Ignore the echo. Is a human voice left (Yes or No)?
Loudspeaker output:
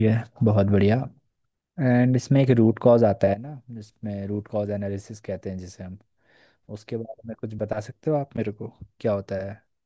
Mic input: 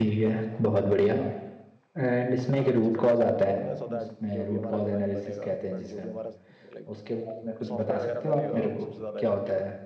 Yes